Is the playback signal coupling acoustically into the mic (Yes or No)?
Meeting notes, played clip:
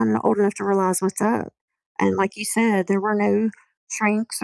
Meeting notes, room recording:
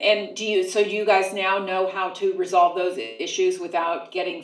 No